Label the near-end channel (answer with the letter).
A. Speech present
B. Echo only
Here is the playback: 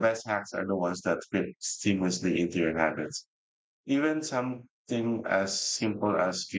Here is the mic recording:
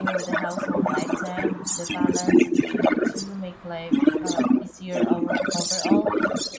A